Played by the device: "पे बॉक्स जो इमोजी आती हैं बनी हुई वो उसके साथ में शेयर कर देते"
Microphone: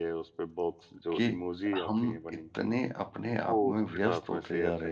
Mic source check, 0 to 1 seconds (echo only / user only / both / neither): echo only